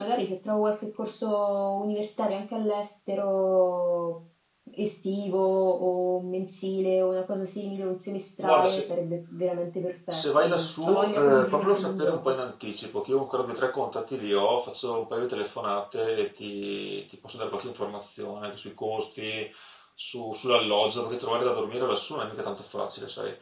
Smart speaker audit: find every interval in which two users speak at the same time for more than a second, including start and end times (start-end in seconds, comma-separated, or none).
10.1-12.2